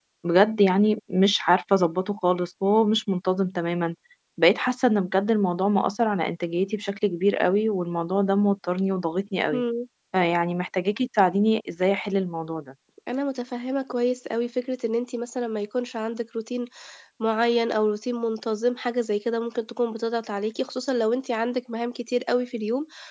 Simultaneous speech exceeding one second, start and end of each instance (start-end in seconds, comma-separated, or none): none